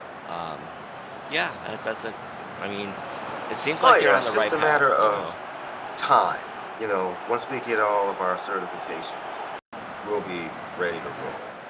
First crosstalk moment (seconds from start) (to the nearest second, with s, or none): 4 s